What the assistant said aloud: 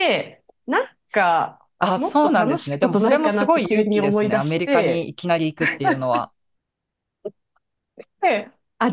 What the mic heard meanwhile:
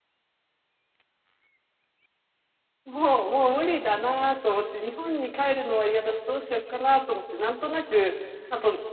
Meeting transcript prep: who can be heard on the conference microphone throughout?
user only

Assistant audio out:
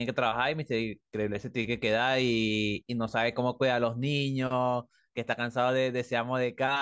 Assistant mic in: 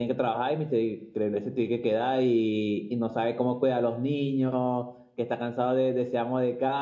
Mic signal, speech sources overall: echo only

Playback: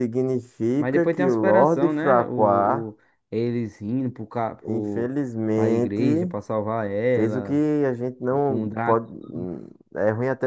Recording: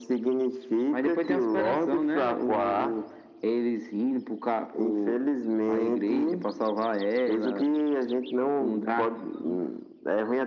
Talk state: echo only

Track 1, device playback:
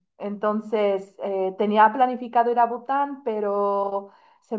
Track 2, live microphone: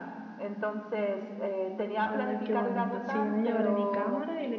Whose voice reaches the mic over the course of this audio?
both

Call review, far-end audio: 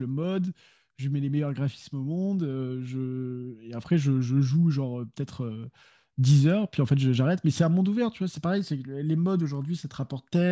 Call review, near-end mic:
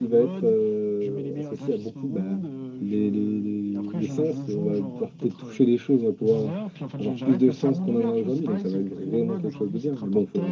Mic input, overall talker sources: both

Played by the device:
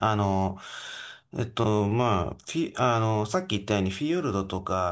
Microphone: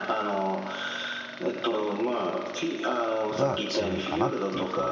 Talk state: both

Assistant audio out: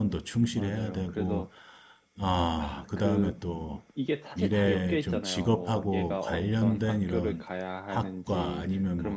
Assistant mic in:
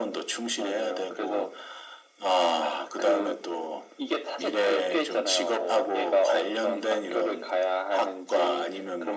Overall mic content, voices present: echo only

